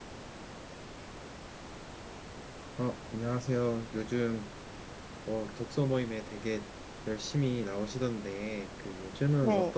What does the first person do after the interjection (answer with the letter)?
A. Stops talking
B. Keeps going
B